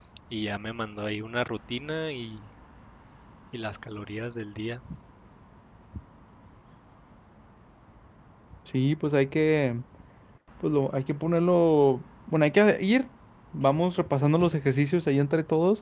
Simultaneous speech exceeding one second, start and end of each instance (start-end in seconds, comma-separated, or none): none